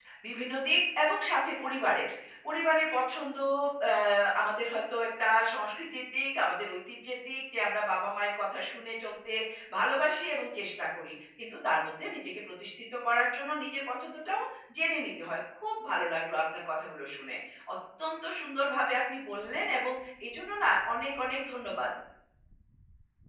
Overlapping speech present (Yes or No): No